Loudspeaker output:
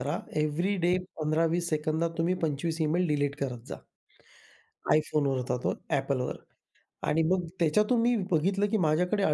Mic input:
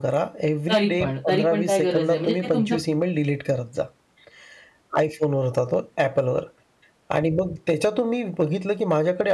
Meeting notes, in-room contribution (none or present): present